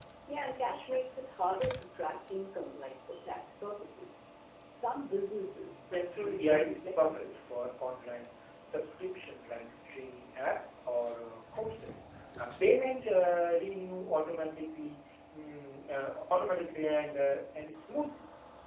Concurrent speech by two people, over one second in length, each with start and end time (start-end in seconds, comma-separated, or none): 6.1-7.6